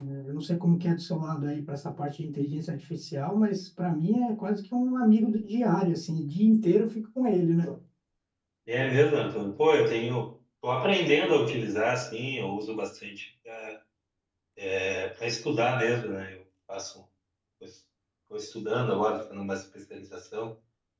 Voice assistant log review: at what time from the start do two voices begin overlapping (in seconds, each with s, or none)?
none